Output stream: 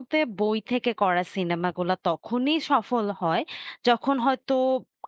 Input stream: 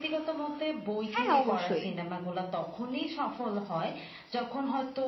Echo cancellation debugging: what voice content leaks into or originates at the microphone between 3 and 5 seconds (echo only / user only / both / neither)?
echo only